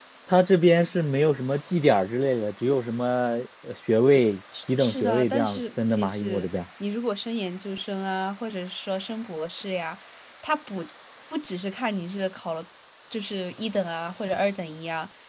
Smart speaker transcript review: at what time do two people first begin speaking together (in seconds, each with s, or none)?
4.5 s